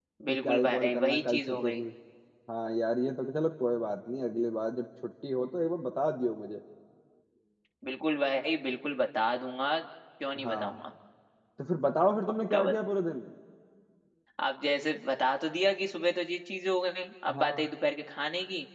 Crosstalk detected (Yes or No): Yes